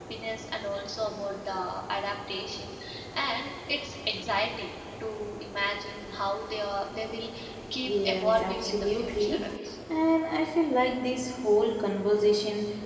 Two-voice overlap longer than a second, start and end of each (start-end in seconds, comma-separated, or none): 7.8-9.4